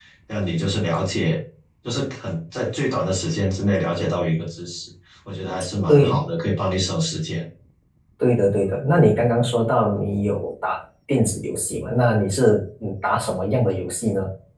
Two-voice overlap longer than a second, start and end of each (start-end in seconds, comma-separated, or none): none